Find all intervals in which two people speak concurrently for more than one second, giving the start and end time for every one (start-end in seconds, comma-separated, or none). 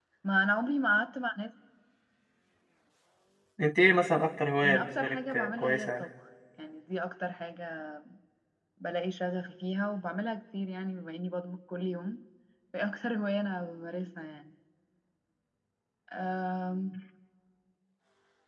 4.6-6.0